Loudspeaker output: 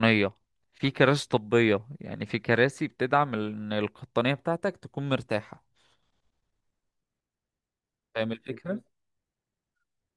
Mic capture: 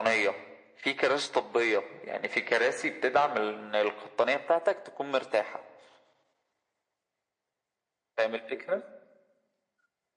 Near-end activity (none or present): none